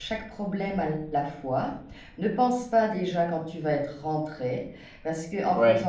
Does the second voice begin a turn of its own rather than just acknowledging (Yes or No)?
No